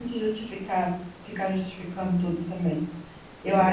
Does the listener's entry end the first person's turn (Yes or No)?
No